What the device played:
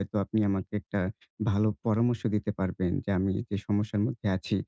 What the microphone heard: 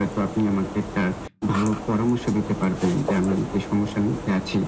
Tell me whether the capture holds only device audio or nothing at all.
Yes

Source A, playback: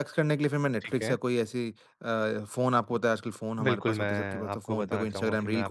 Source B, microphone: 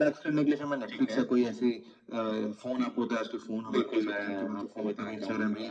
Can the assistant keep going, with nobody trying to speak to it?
Yes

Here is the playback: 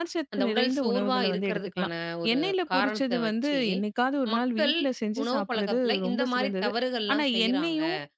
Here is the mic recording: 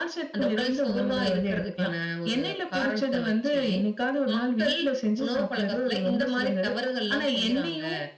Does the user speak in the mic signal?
No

